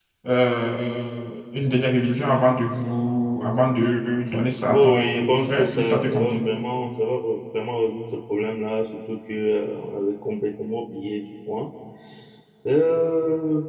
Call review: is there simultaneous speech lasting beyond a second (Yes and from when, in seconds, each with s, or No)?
Yes, from 4.7 s